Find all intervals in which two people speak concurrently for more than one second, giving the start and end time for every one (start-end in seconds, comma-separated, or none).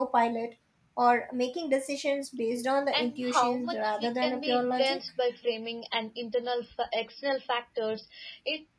2.9-5.0